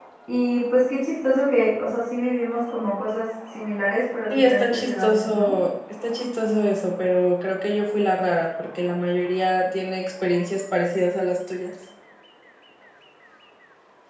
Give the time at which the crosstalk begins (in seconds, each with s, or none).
4.3 s